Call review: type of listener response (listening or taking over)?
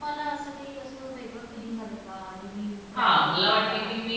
taking over